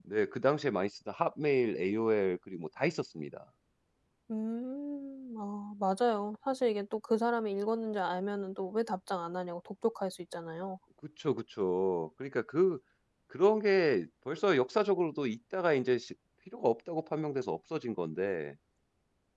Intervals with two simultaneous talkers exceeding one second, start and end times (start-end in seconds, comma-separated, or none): none